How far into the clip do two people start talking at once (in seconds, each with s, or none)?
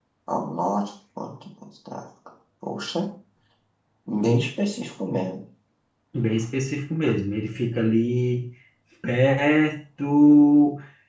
none